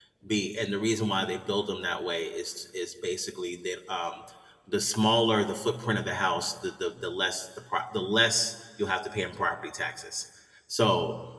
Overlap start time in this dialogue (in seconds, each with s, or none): none